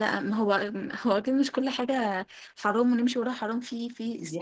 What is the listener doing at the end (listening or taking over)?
taking over